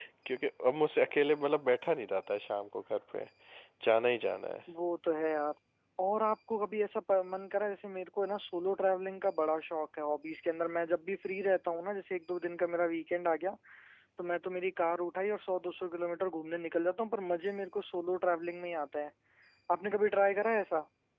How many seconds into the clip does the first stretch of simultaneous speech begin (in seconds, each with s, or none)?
none